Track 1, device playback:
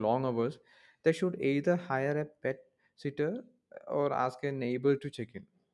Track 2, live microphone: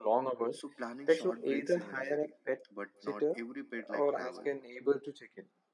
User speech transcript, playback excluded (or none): so planning short breaks is necessary. But not every pet like travel.